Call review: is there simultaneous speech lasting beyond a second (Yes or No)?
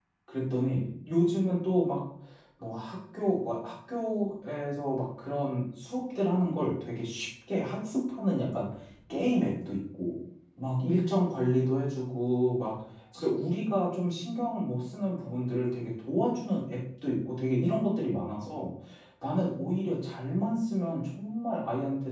No